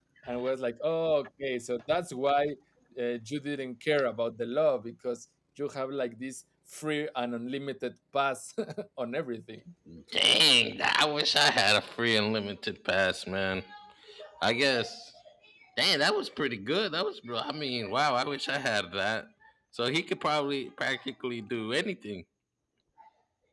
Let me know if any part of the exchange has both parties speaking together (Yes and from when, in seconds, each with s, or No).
No